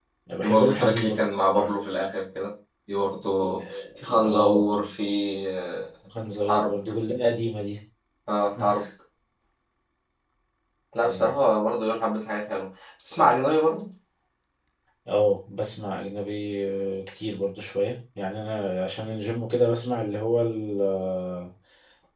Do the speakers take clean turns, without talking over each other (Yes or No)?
No